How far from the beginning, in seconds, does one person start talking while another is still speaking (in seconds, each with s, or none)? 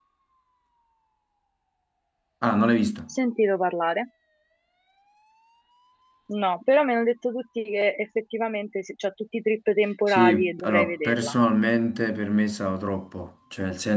10.1 s